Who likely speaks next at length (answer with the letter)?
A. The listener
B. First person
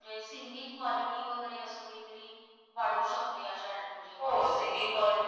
A